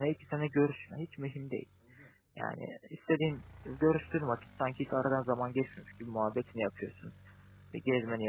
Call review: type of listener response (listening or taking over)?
listening